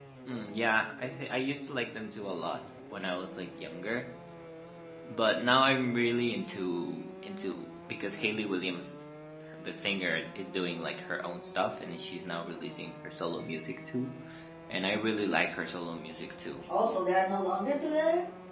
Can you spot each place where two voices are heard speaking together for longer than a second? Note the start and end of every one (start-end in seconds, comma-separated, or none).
none